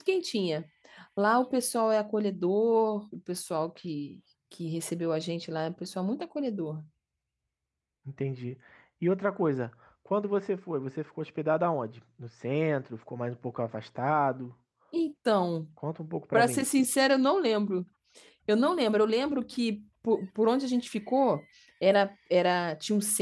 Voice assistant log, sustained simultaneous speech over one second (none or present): none